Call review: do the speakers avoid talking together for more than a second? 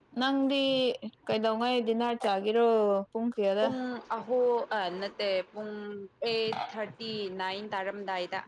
Yes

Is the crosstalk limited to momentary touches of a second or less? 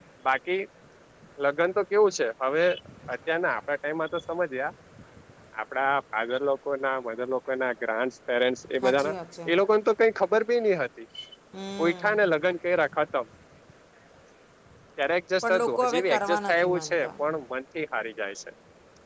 No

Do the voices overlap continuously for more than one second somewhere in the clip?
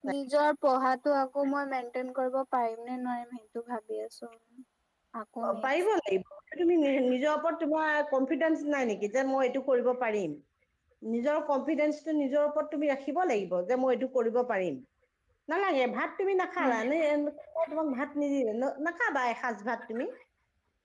No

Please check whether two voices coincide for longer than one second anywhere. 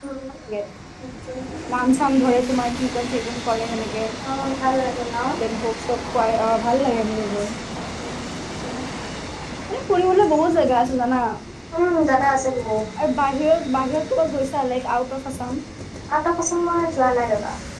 No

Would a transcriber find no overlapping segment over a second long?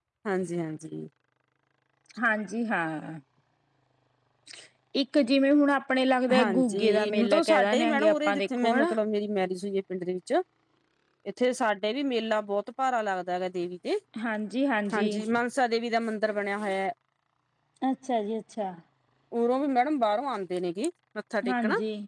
No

